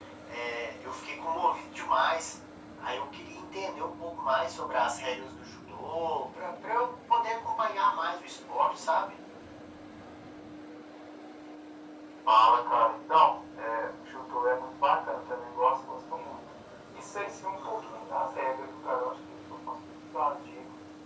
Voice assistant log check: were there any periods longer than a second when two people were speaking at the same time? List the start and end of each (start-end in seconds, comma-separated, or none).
none